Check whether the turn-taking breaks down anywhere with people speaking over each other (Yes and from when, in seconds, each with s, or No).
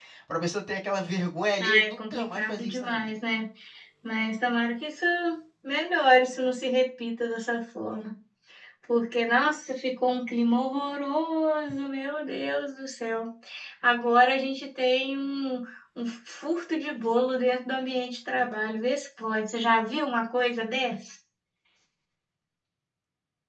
Yes, from 1.6 s